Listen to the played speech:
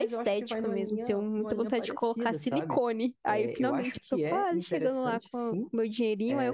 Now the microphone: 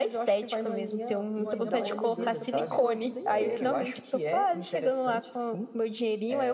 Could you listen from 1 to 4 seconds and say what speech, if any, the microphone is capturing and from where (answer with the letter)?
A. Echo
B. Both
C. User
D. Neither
B